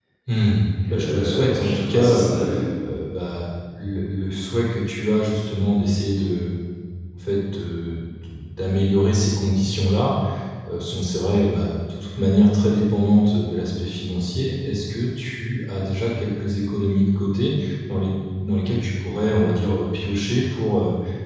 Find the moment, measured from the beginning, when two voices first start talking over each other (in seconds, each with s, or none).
0.9 s